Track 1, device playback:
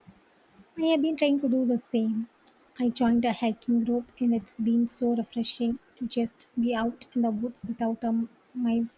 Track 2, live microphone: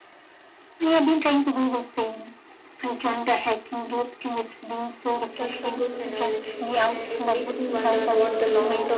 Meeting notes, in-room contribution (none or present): present